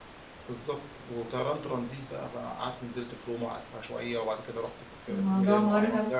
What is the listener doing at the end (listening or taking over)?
taking over